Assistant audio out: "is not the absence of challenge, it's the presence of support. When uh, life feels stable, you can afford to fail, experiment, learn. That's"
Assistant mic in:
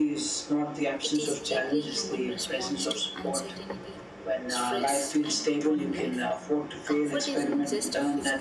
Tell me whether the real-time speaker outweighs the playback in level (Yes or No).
No